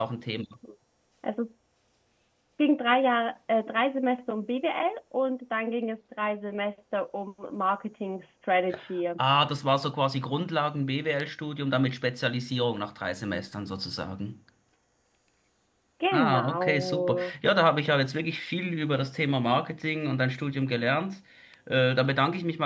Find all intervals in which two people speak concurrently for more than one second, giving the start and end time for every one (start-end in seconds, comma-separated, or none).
16.1-17.3